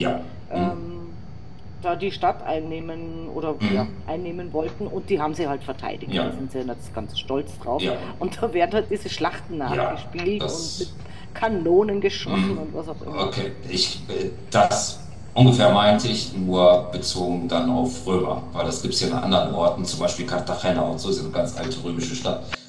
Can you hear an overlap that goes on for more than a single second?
No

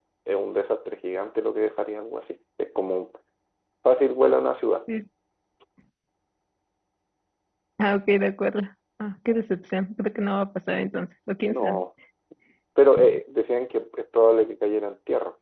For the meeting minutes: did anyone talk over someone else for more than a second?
No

